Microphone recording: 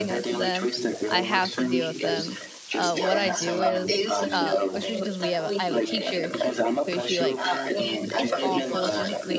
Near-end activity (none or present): present